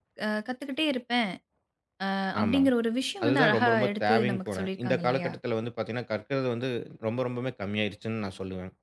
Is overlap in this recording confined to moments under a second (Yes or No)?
No